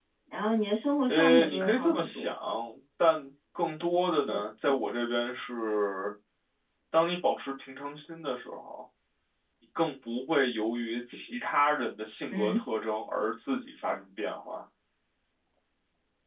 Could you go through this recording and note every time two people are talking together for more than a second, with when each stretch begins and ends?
1.1-2.3

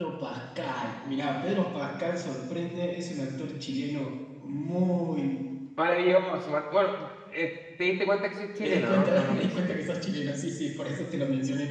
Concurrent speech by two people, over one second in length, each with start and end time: 8.6-9.8

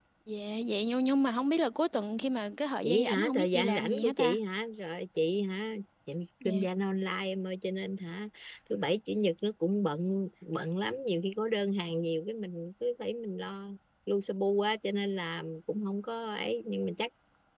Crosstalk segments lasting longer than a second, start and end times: 2.8-4.4

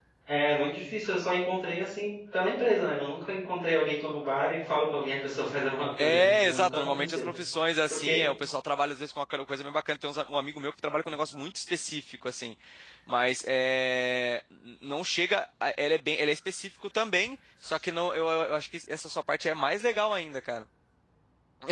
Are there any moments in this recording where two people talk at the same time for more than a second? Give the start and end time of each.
6.0-7.2

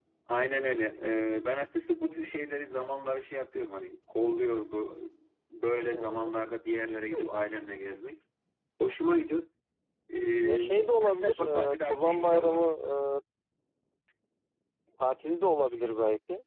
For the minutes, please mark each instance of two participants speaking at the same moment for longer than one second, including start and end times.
10.4-12.6

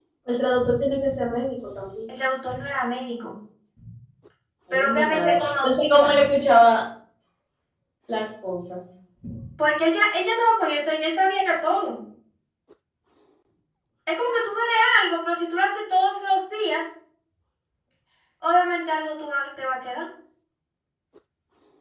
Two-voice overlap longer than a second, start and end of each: 4.7-6.2

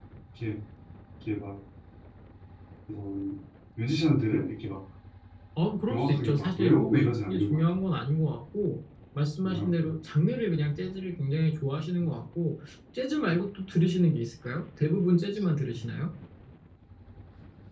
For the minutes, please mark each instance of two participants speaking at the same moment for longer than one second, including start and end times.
5.9-7.6

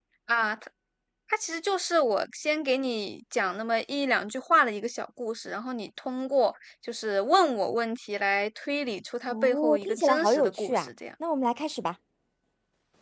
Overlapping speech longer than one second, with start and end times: 9.3-10.9

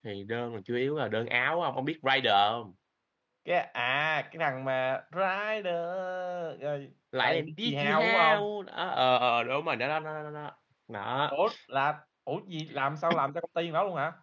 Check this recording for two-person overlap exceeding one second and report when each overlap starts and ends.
7.2-8.5

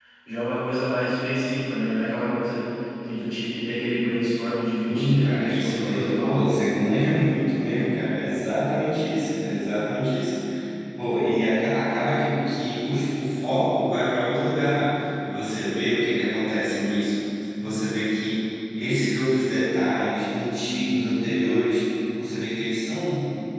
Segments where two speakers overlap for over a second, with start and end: 4.9-6.7

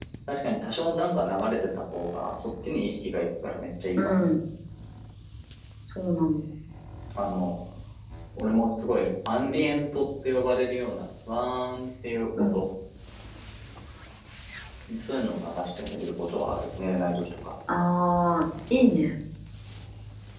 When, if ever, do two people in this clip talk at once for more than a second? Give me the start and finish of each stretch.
none

